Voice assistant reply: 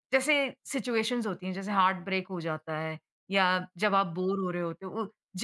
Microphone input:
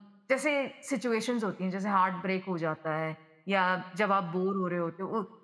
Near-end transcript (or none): none